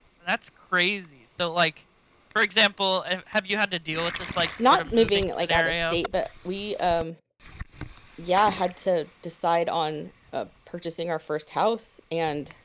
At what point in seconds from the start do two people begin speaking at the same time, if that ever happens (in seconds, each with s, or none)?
4.6 s